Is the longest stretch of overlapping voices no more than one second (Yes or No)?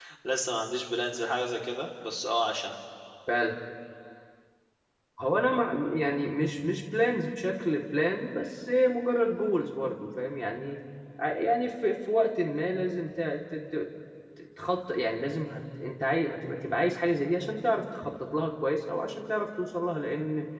Yes